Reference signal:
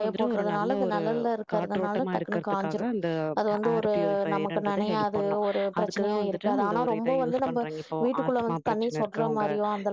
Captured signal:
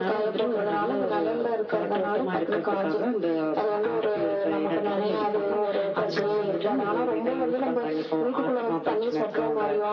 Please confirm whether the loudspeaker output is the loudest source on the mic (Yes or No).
Yes